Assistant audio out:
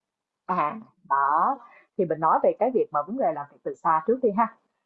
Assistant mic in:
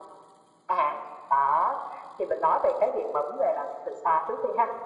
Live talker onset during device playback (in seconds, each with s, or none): none